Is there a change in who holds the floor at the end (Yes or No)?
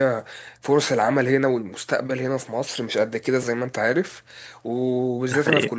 No